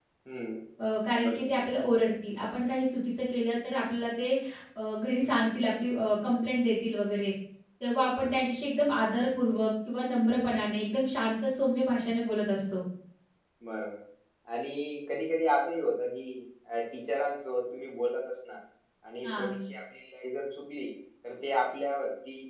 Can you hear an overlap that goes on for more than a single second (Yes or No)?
No